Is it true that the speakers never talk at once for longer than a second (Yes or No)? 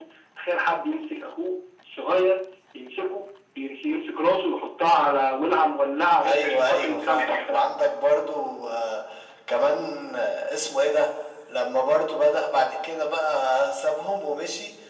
No